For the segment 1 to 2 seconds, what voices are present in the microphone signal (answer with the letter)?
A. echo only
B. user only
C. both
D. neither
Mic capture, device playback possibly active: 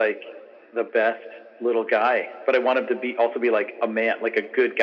A